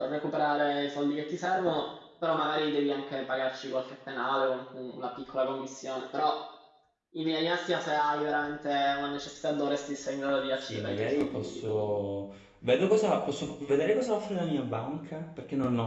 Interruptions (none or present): present